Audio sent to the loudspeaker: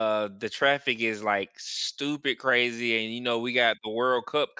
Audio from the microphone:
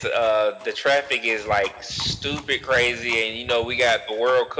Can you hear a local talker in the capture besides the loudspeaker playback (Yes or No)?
No